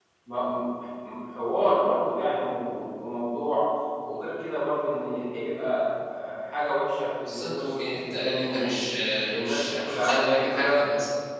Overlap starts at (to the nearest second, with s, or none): 7 s